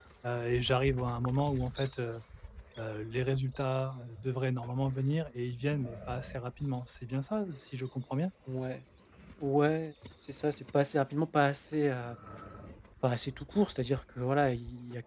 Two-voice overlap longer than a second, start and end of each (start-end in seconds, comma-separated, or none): none